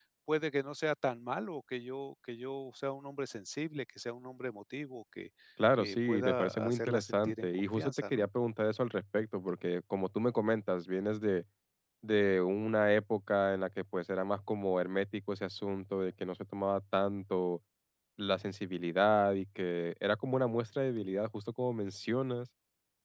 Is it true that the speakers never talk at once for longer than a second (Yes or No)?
No